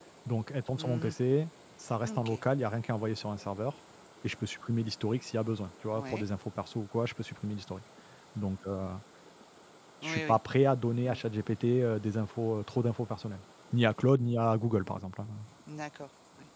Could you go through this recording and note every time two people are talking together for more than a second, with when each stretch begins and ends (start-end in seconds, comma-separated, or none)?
none